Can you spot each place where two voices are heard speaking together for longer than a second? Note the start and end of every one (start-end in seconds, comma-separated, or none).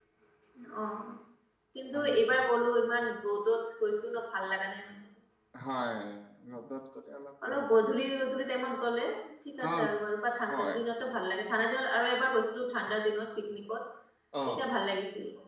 none